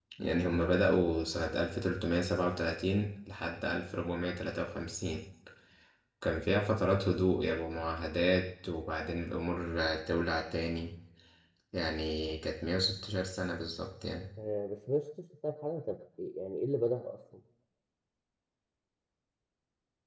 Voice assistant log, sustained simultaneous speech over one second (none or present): none